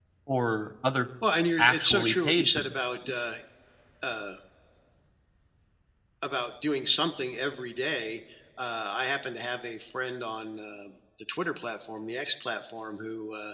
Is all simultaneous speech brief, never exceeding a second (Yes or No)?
No